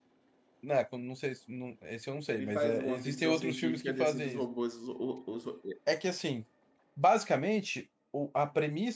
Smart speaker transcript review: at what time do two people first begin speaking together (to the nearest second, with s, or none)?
2 s